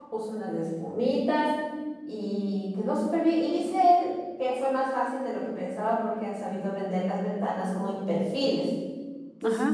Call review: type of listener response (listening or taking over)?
listening